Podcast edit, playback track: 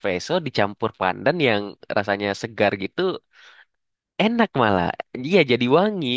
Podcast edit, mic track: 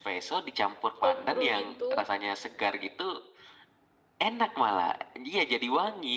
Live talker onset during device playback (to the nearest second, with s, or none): 1 s